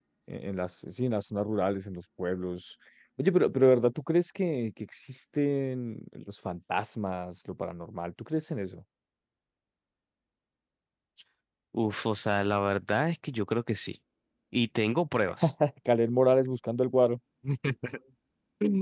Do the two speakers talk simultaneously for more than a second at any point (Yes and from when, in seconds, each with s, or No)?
No